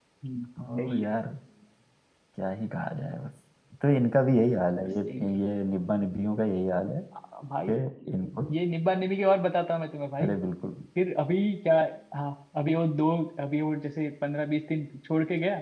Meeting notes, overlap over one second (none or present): none